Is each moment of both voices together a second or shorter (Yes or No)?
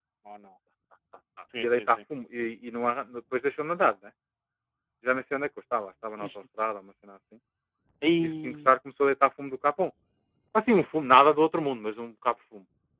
Yes